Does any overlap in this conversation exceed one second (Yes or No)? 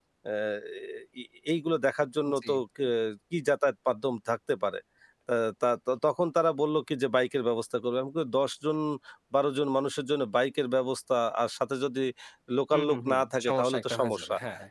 Yes